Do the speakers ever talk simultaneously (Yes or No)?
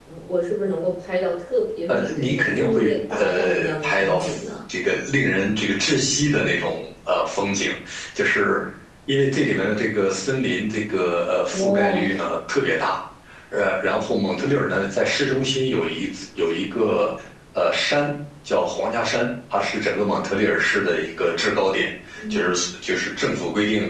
Yes